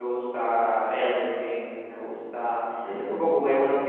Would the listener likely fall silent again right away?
Yes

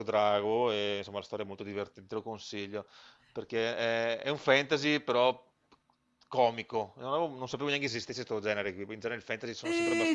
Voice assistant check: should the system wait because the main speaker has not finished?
No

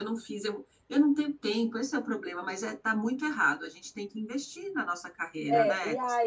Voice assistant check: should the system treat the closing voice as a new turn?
Yes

